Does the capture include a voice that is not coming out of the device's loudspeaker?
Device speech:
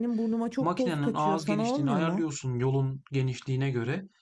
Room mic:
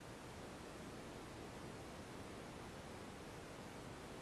No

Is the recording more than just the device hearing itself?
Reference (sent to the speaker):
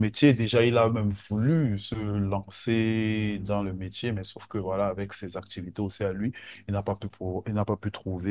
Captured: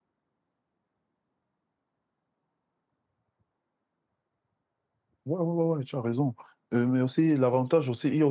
Yes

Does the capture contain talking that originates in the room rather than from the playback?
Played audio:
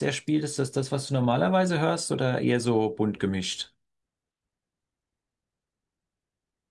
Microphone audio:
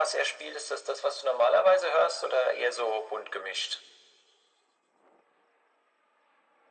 No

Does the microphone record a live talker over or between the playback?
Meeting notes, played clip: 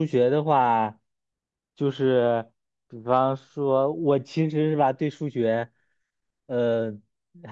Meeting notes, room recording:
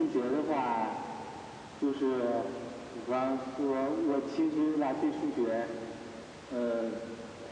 No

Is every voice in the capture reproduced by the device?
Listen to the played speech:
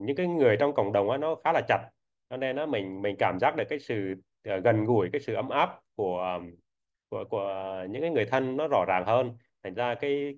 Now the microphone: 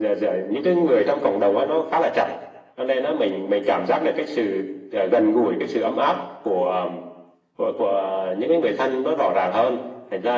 Yes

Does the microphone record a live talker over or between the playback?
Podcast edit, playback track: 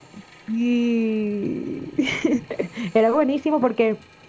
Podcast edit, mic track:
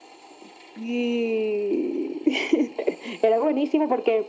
No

